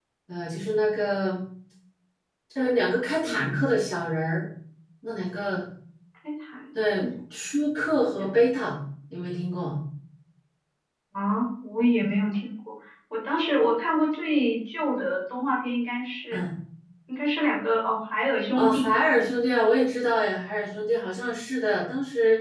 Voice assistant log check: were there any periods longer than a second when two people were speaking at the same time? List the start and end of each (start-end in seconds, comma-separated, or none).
none